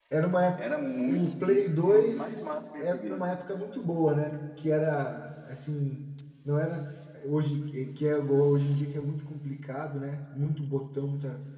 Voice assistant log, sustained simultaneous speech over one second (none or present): present